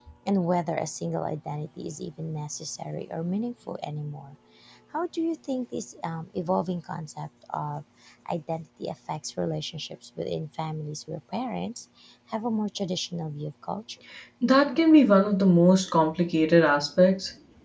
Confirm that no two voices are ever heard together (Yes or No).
Yes